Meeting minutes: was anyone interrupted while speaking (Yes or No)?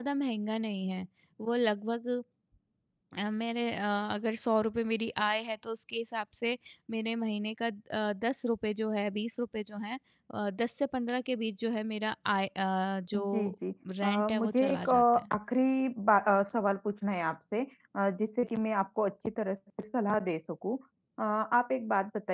Yes